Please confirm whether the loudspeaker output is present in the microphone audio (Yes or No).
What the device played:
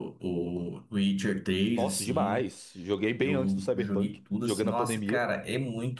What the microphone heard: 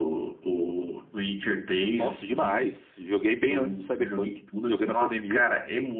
Yes